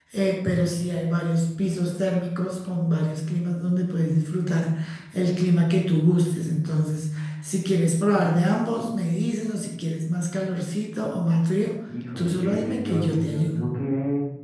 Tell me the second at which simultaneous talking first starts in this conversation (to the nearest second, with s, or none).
12 s